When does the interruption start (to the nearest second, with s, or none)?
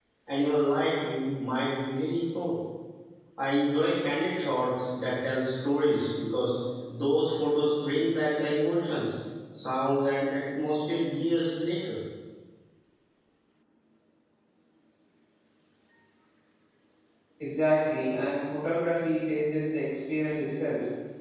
none